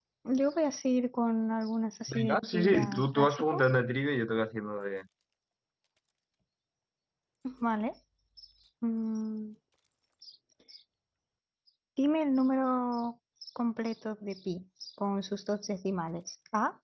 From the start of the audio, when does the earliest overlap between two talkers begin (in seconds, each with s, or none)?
2.1 s